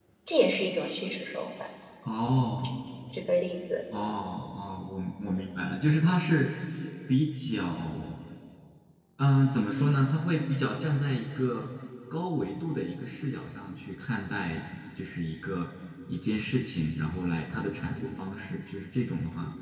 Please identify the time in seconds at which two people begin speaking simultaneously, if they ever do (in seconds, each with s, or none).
none